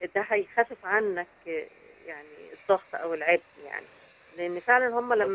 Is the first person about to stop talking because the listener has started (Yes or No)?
No